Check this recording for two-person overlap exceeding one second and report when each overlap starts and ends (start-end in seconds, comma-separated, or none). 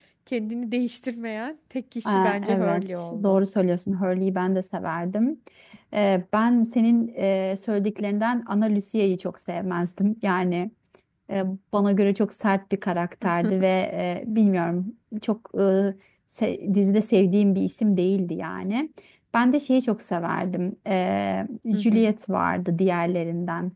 2.0-3.4